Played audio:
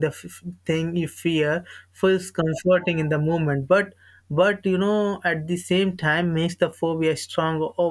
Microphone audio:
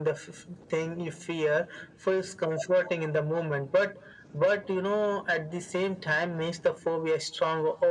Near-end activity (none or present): none